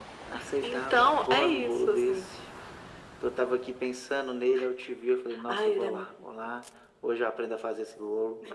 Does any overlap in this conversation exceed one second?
Yes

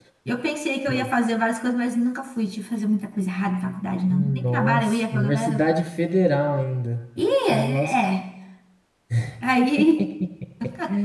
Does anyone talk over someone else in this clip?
Yes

